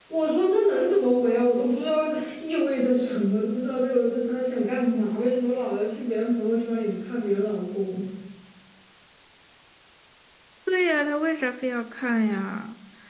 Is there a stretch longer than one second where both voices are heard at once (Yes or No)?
No